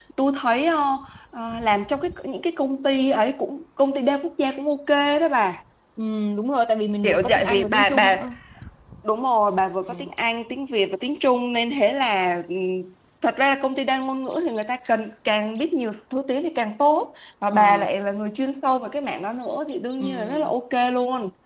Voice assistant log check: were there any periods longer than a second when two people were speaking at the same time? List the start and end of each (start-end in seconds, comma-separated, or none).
7.0-8.3